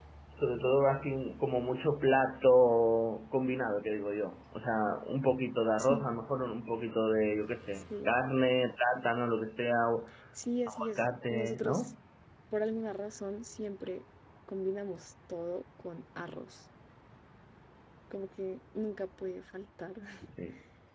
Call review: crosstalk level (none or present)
present